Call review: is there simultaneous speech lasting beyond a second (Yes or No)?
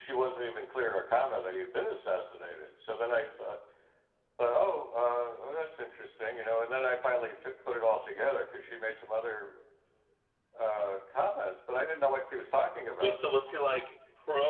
No